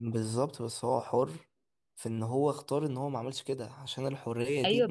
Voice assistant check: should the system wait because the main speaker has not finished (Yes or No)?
No